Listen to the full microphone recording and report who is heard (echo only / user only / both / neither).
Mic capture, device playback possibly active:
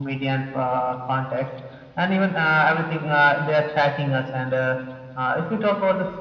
echo only